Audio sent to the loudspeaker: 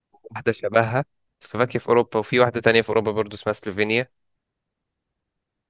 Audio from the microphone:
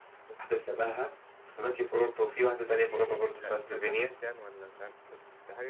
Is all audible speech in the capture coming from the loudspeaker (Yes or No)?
No